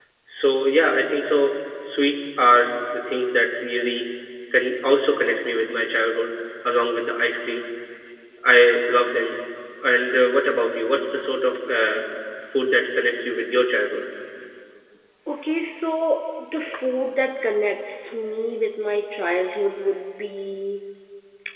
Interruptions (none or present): none